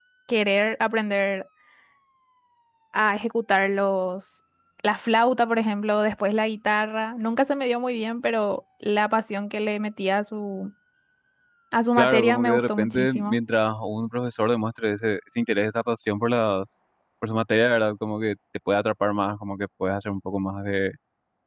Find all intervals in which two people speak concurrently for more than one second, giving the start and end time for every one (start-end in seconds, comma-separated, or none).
12.0-13.4